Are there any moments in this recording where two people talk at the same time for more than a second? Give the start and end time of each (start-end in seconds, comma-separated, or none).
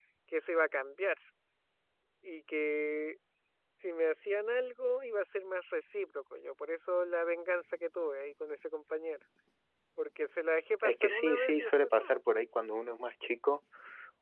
10.8-12.2